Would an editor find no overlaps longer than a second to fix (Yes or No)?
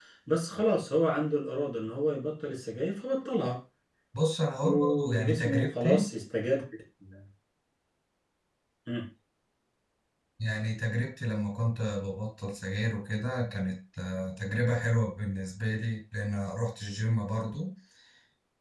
No